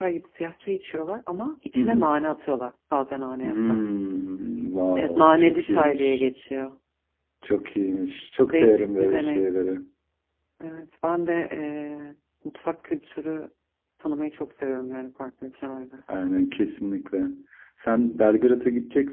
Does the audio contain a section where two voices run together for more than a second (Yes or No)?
Yes